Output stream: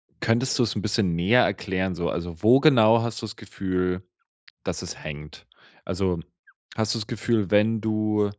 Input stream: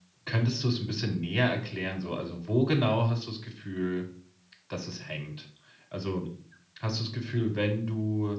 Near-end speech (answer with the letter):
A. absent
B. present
A